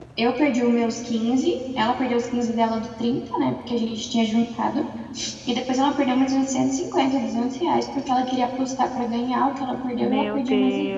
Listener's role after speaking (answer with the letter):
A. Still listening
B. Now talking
B